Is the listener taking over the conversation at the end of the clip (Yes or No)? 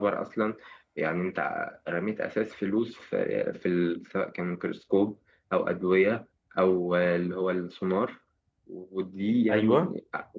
No